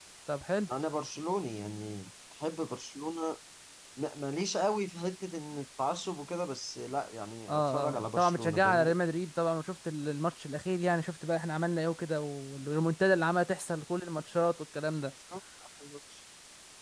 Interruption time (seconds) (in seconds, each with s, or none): 7.5 s